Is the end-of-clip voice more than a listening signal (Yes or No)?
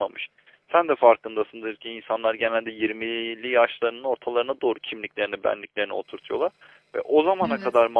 No